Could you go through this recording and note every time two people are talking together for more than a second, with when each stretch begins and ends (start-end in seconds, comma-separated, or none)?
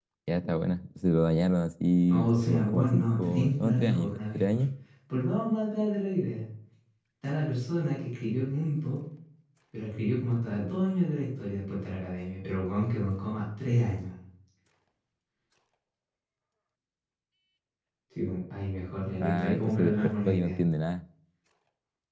2.1-4.6, 19.2-20.6